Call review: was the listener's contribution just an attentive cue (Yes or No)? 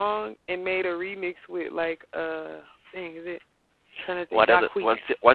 No